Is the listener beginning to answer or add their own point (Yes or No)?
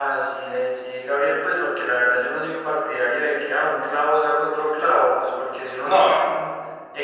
No